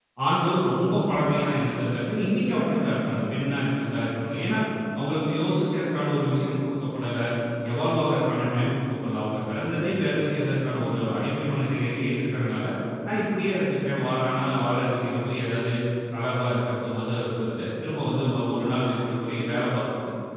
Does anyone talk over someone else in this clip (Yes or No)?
No